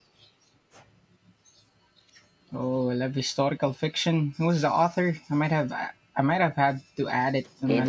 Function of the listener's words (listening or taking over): taking over